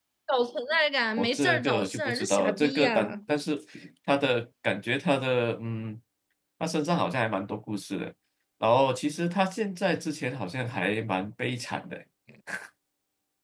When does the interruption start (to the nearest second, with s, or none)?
1 s